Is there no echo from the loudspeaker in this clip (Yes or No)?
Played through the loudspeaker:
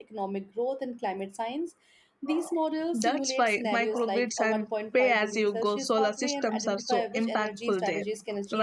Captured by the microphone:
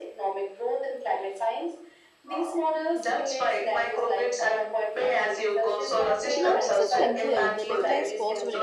No